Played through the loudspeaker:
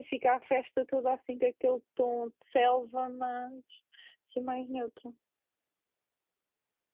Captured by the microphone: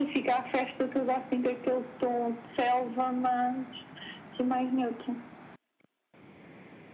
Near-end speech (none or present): none